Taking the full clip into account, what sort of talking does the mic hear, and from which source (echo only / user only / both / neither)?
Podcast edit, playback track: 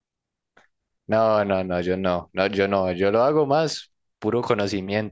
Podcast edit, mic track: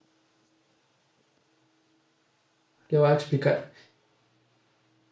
user only